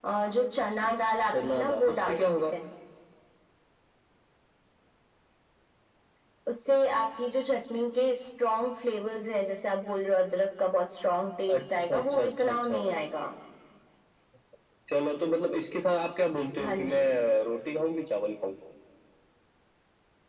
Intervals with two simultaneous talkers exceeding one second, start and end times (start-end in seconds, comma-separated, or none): 1.3-2.5, 11.5-12.8